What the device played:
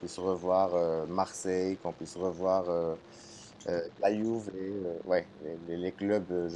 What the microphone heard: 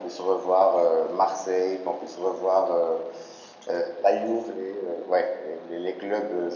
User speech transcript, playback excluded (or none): none